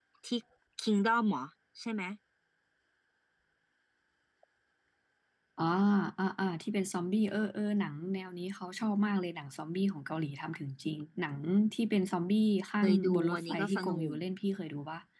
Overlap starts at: 12.8 s

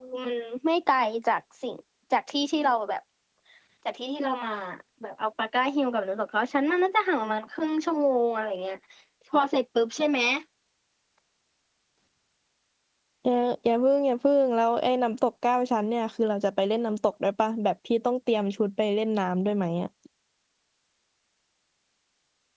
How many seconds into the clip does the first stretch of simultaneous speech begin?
none

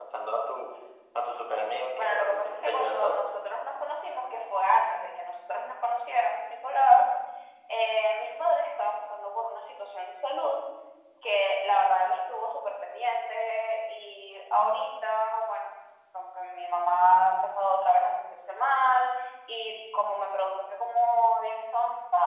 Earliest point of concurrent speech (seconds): 1.9 s

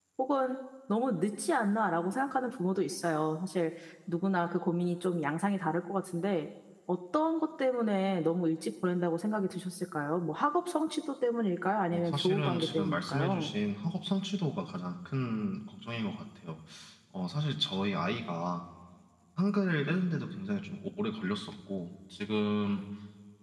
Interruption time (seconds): 11.9 s

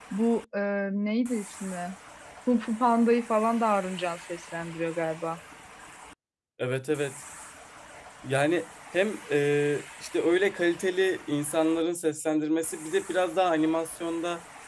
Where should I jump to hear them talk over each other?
none

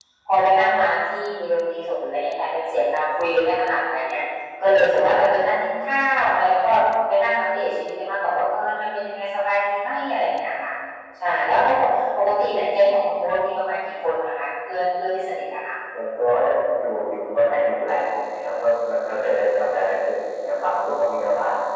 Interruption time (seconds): none

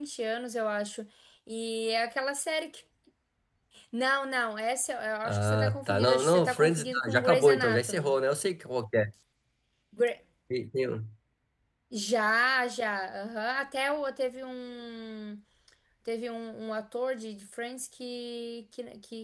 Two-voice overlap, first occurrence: 5.2 s

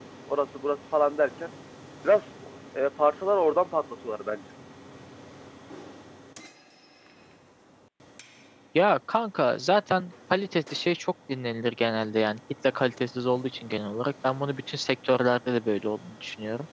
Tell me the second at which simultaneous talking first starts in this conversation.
none

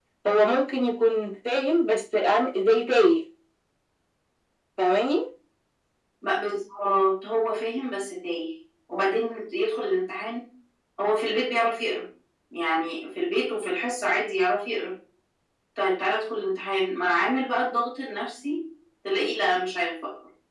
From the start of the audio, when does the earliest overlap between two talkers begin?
none

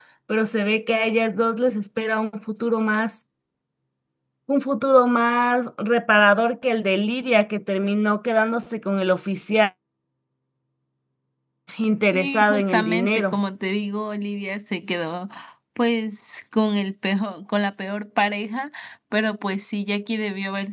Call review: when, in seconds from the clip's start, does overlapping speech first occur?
12.1 s

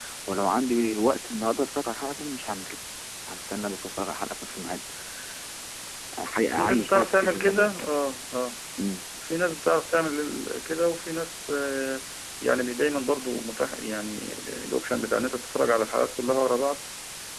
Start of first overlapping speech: 6.5 s

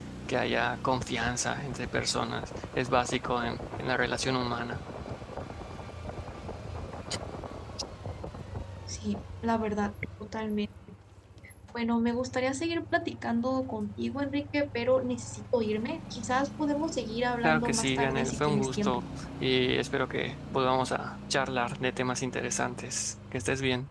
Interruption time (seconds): 17.4 s

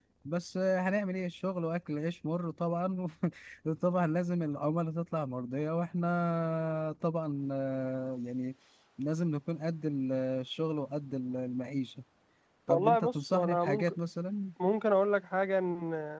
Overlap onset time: 12.7 s

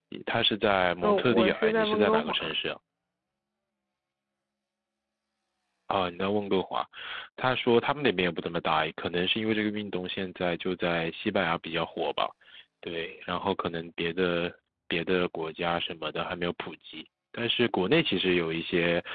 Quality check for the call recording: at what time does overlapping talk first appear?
1.0 s

